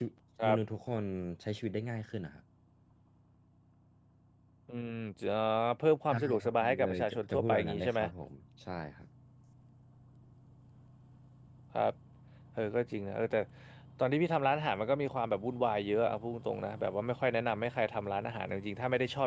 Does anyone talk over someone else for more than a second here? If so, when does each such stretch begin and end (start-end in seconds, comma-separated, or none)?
6.1-8.0